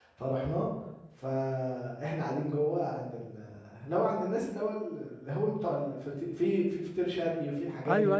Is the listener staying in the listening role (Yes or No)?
No